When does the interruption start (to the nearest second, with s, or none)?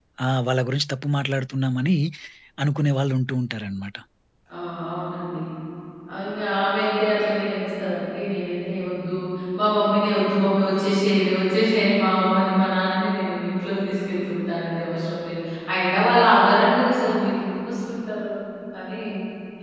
none